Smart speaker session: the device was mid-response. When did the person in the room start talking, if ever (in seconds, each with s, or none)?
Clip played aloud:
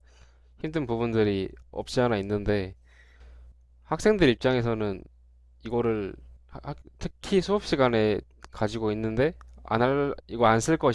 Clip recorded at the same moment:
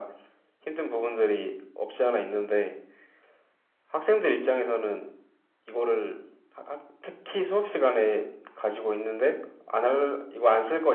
none